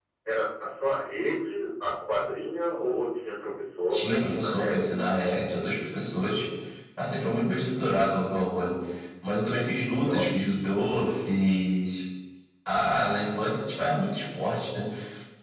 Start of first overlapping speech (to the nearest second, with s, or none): 4 s